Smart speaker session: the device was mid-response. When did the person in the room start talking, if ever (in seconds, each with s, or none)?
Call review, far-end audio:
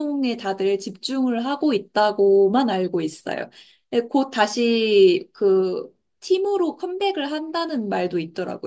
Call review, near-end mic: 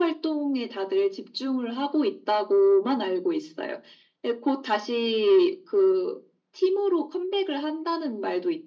none